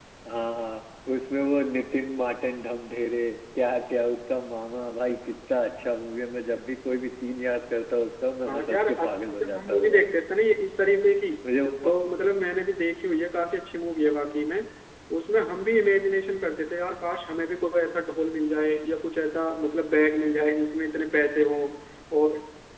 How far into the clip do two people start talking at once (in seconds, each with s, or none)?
8.5 s